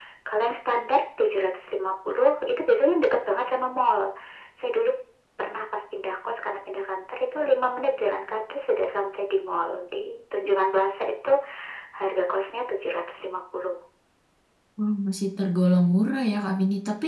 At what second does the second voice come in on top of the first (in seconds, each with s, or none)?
none